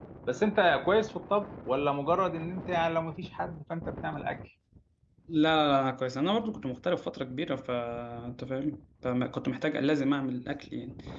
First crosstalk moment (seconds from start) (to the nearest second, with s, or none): none